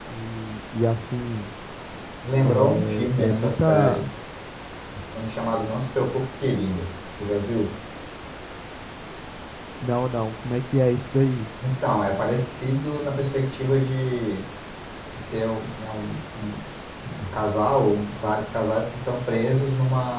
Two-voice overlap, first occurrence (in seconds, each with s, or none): 2.4 s